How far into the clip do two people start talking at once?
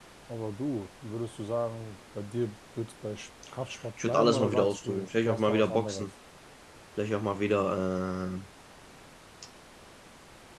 4.0 s

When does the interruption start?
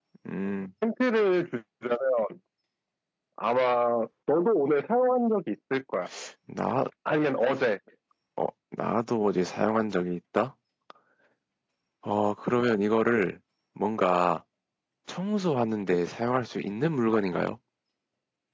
none

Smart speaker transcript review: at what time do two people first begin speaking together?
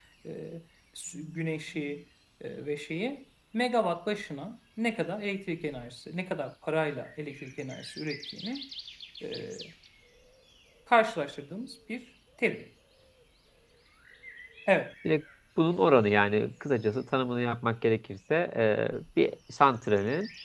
none

